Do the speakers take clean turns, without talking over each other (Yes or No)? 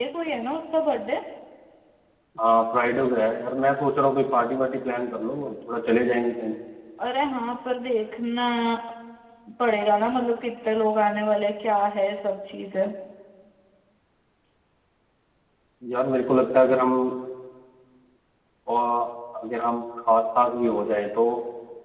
Yes